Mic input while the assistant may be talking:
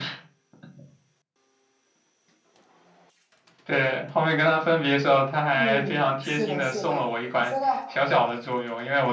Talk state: both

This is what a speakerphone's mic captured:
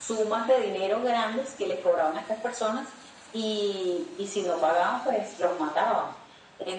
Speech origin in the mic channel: echo only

